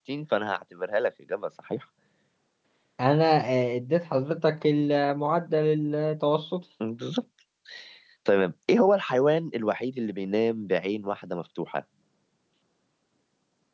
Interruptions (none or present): none